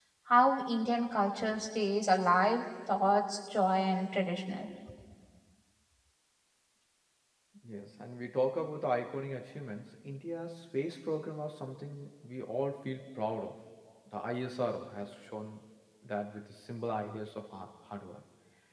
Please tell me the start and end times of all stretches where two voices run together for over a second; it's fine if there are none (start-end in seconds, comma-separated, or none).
none